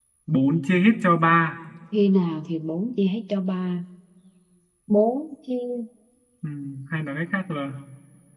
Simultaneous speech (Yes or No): No